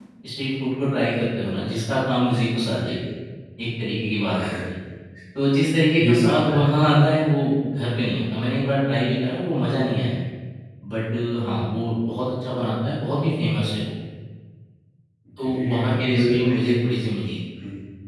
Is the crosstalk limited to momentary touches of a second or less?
No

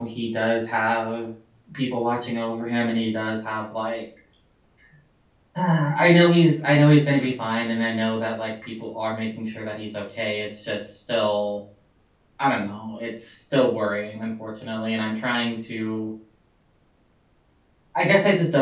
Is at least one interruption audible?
No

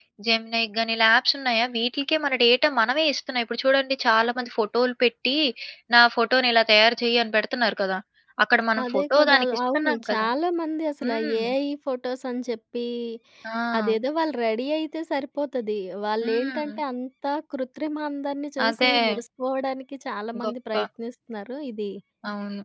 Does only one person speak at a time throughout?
No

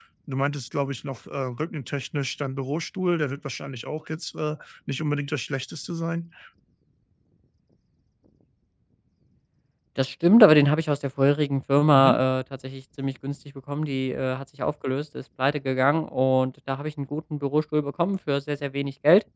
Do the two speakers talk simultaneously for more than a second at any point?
No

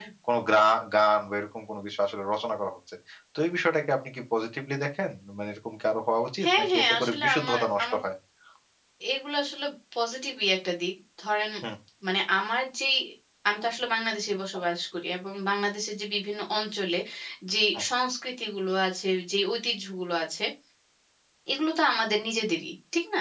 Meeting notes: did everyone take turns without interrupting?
No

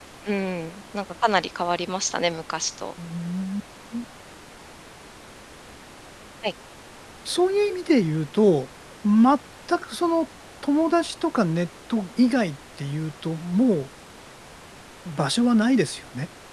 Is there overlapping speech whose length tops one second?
No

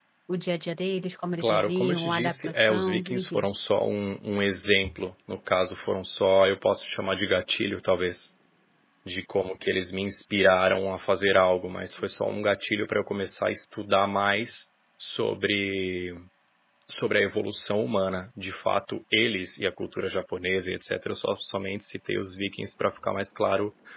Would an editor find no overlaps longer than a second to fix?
No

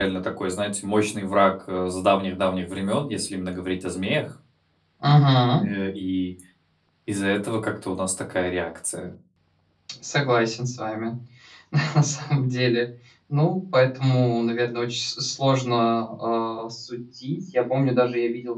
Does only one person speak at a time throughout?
Yes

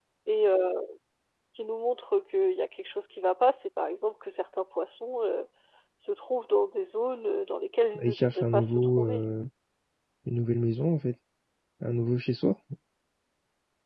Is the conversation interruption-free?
No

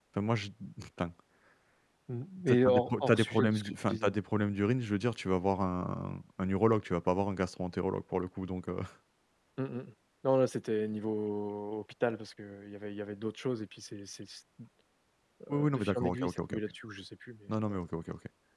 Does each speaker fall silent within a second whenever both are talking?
No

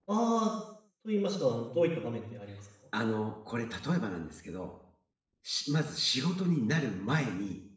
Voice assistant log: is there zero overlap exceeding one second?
Yes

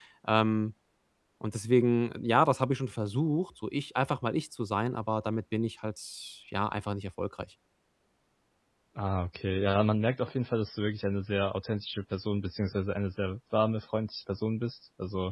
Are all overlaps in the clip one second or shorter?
Yes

